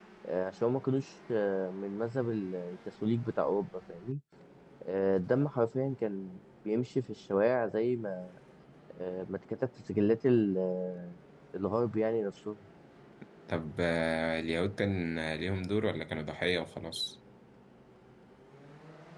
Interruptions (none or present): none